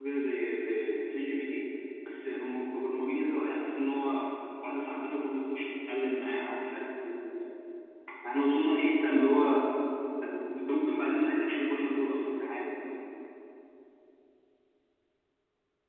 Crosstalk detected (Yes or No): No